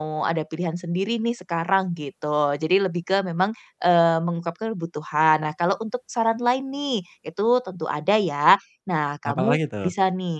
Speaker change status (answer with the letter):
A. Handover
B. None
B